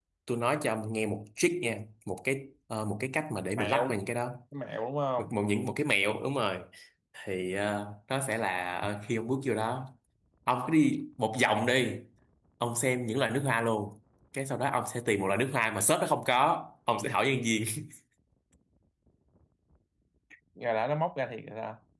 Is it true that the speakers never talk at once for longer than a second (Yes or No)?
Yes